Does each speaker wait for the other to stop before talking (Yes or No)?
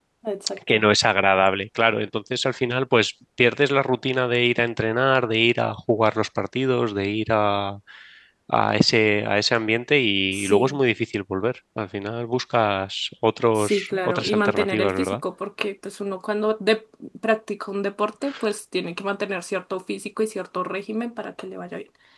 No